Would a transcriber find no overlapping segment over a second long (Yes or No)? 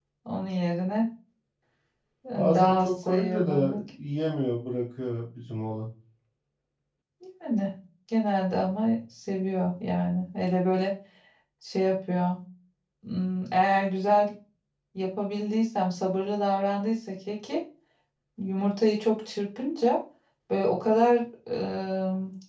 No